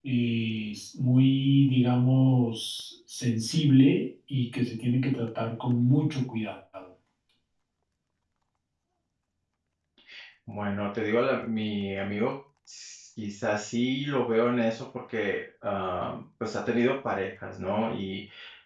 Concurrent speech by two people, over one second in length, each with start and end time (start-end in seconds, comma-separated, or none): none